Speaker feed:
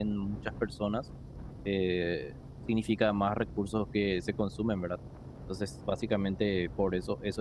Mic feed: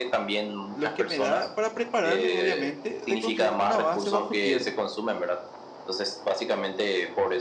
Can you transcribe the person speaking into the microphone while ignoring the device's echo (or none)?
Lo que me da para prepararme, obviamente, de construir una base bajo tierra